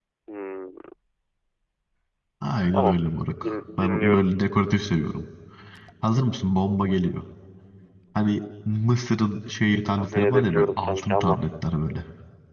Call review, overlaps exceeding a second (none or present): present